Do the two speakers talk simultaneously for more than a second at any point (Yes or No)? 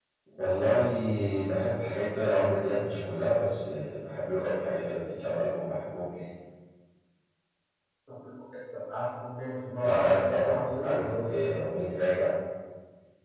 Yes